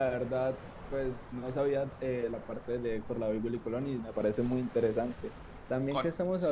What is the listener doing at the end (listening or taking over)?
listening